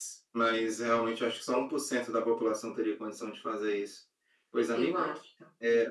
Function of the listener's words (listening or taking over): listening